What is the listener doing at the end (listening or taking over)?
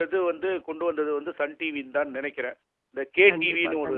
taking over